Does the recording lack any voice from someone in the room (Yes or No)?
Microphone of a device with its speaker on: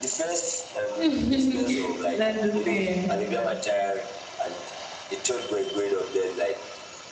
No